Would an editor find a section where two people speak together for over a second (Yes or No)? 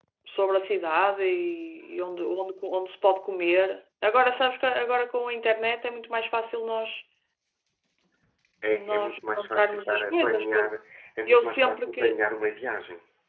Yes